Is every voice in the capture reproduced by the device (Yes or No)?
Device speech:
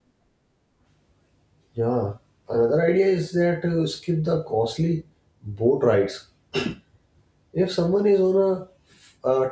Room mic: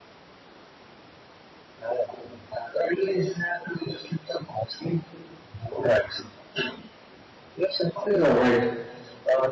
No